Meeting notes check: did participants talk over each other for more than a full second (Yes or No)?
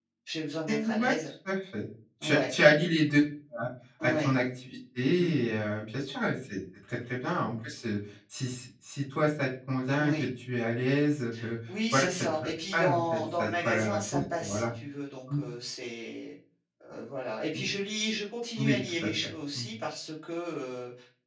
Yes